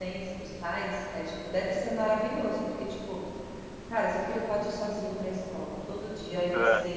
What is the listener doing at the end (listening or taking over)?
listening